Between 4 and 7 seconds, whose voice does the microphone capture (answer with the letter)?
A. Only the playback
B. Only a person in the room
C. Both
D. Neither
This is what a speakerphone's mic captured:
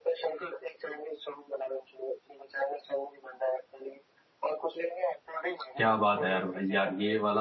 C